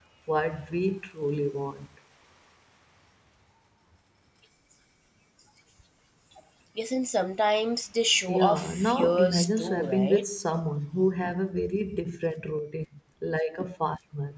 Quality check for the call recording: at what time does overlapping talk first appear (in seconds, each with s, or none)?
8.3 s